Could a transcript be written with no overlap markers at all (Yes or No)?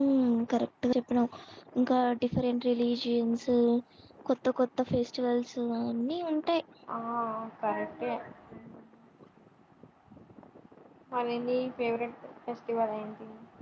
Yes